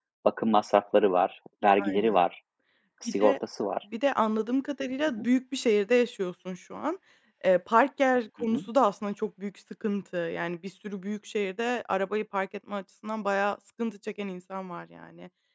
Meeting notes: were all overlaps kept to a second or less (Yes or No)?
Yes